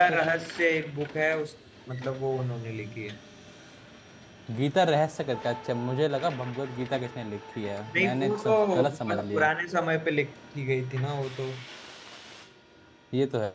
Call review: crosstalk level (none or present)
present